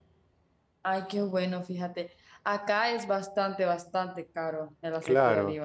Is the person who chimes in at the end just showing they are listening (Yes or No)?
No